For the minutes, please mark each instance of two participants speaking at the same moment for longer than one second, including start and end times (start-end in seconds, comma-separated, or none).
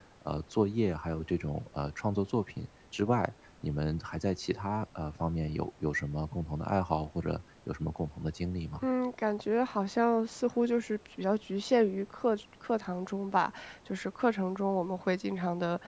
none